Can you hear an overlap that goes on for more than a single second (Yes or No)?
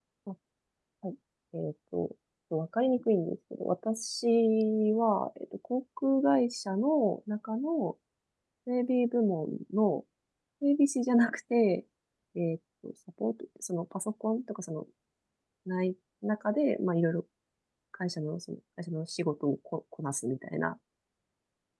No